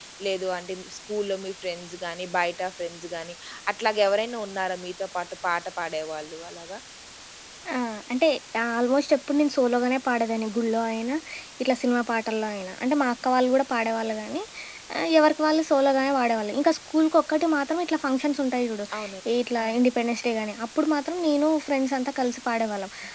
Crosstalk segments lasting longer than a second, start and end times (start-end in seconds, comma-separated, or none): none